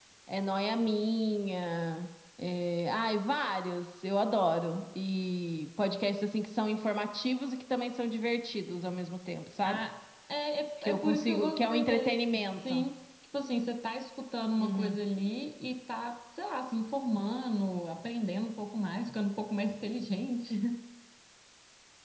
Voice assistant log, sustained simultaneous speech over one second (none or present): present